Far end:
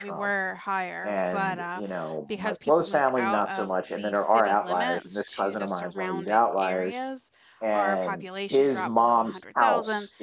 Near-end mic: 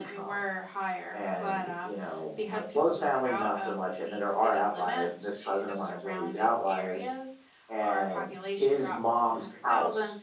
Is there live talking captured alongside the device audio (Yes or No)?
No